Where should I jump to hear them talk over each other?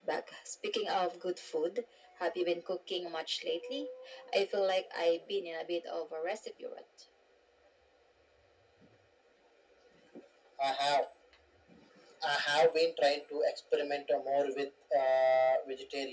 none

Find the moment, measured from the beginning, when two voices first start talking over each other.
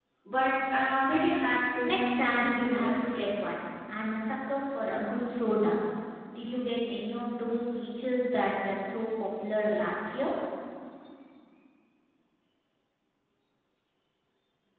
2 s

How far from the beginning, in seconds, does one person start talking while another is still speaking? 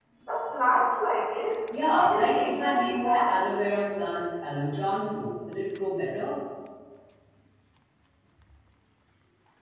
2 s

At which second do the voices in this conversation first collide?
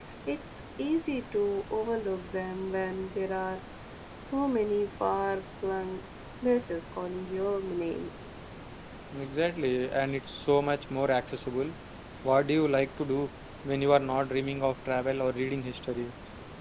none

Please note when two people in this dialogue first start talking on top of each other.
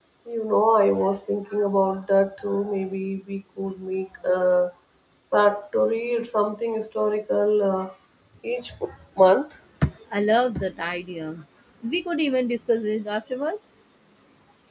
none

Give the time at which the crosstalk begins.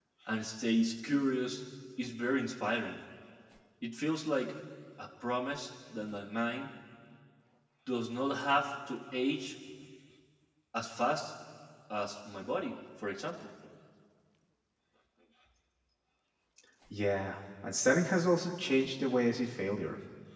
none

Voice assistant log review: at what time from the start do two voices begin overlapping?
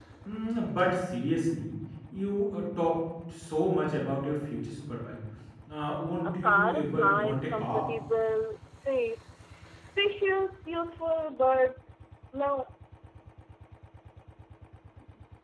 6 s

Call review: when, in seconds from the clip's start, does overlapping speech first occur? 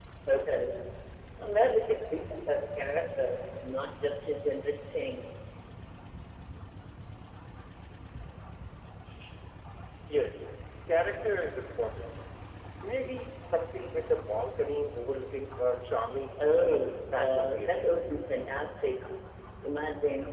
16 s

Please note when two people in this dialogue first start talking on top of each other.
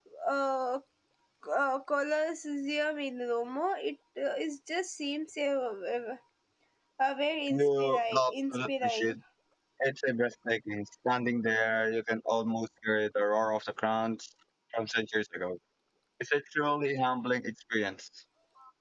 7 s

